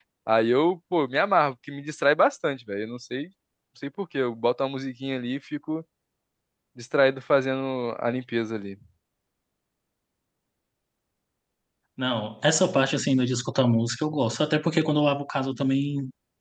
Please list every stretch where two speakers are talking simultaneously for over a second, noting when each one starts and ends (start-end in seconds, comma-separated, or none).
none